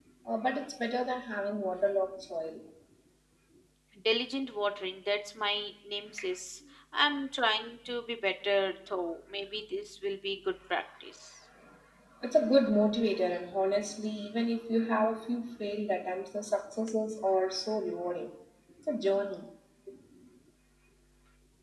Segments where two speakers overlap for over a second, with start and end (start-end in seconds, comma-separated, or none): none